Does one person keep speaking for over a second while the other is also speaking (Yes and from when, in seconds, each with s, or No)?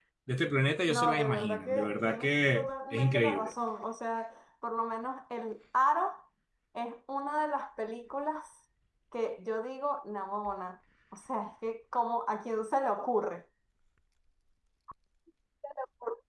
Yes, from 0.9 s